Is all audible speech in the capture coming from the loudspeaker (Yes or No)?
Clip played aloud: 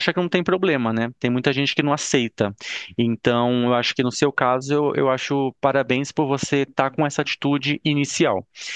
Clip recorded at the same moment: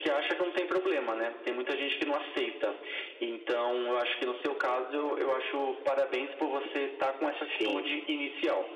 No